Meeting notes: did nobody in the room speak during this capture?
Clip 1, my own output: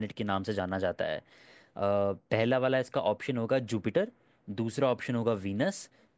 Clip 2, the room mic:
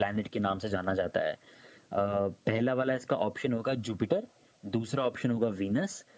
Yes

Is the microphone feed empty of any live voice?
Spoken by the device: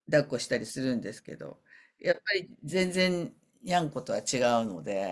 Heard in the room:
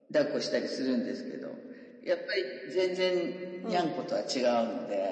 No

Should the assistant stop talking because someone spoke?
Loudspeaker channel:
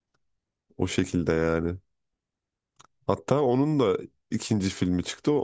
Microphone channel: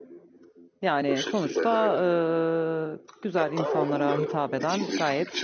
Yes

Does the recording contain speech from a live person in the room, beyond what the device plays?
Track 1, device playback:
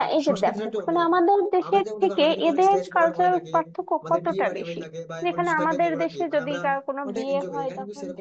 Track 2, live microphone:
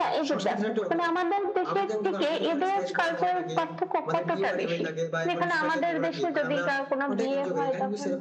No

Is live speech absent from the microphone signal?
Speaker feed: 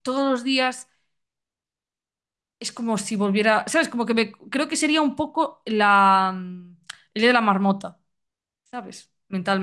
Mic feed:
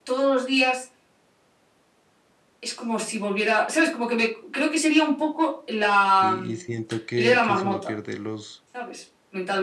No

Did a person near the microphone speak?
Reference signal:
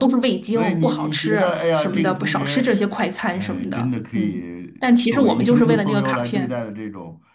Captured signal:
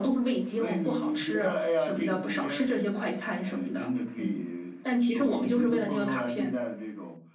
No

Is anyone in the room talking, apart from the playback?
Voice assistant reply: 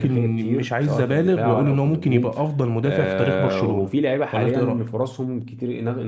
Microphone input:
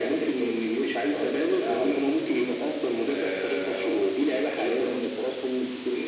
No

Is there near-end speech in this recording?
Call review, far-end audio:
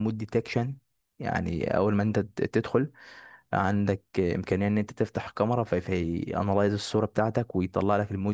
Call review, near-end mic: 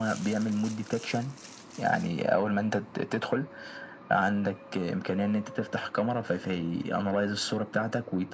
No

